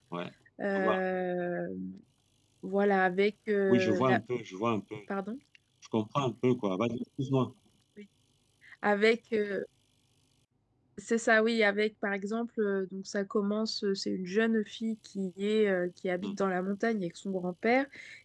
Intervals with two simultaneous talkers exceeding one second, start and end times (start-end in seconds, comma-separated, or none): none